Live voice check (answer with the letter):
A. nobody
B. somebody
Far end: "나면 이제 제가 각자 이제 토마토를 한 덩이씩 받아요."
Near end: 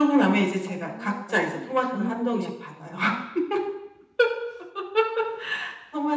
B